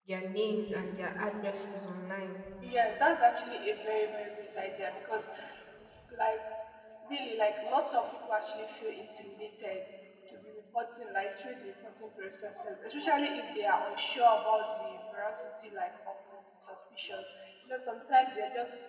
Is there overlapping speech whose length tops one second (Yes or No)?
No